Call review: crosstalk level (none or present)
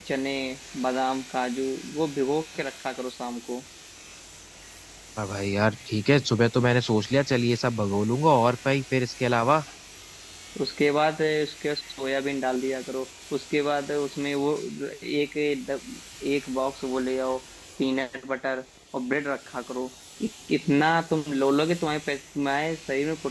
none